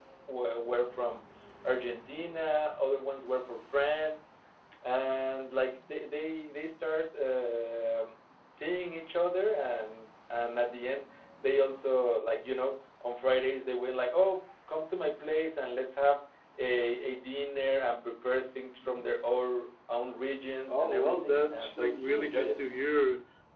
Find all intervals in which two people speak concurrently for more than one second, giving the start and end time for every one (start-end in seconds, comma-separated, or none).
20.7-22.6